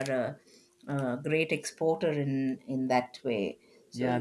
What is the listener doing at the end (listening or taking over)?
taking over